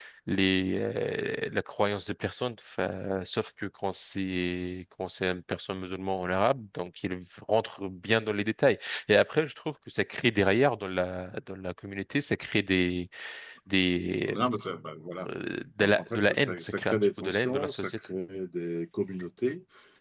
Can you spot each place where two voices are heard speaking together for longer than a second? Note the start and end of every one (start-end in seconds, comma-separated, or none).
15.8-17.9